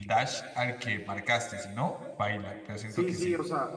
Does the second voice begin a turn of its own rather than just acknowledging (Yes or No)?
Yes